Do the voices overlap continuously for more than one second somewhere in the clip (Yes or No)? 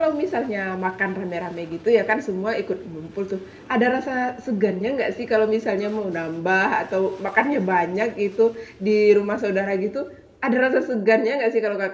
No